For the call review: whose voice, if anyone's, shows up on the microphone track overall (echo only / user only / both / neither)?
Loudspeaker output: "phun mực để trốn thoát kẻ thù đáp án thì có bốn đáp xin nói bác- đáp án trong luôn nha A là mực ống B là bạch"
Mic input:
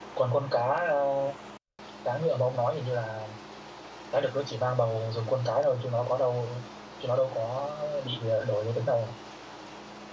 user only